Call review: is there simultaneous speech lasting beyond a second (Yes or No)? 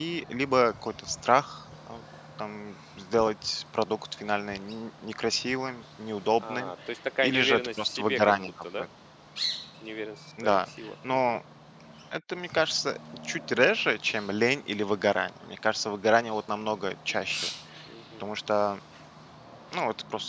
Yes